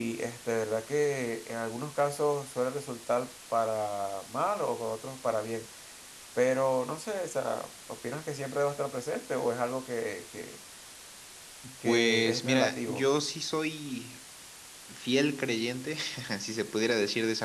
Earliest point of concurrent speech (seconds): 11.8 s

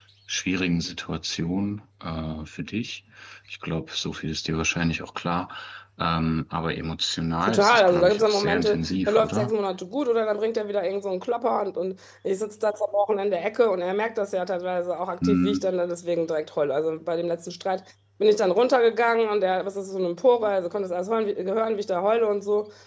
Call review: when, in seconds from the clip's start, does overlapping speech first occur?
7.5 s

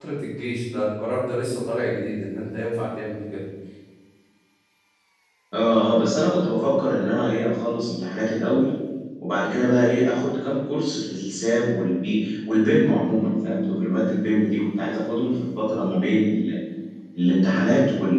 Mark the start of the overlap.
none

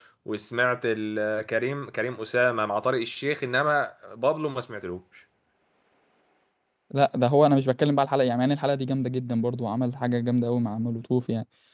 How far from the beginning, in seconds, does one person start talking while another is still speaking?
none

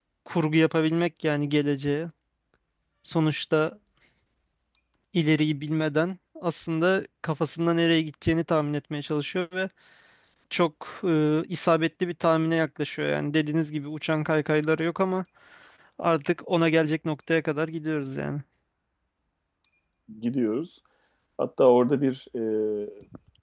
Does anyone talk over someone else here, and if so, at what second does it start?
none

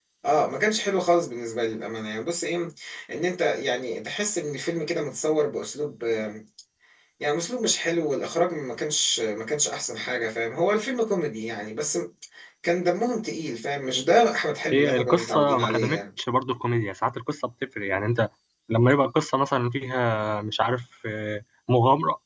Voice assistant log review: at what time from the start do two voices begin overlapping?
14.7 s

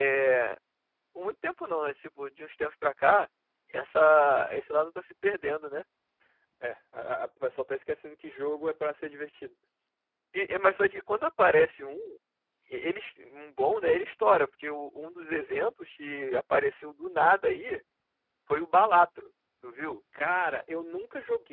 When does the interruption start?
none

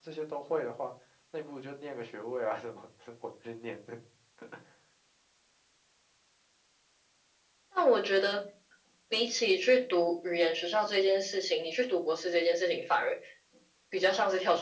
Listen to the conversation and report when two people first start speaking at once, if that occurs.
none

